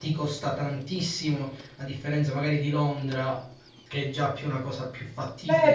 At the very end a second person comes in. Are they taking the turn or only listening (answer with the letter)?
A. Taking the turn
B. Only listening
A